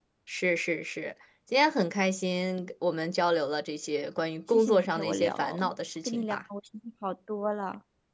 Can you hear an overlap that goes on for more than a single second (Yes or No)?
Yes